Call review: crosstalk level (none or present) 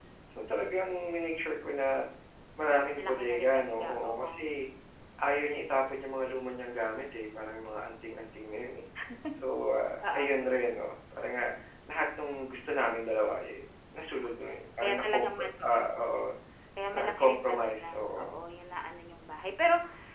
present